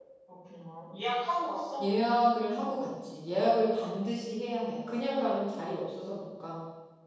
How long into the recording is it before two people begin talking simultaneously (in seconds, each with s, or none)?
none